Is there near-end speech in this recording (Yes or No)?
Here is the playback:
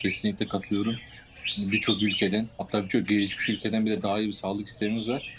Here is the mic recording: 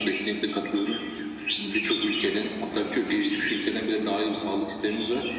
No